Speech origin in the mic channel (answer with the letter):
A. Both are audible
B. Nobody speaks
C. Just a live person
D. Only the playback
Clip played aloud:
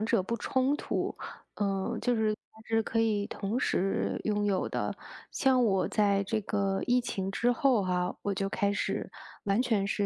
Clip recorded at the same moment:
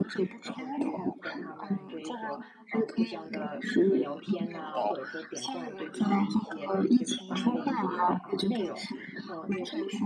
A